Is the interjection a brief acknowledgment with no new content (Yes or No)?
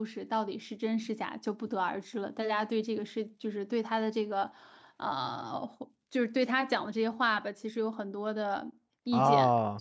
No